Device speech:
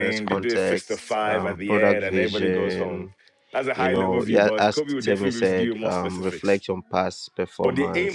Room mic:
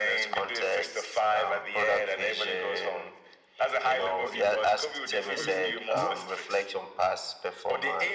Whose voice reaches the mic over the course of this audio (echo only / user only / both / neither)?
both